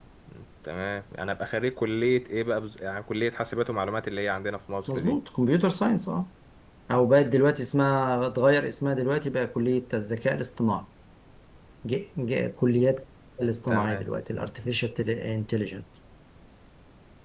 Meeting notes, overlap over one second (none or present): none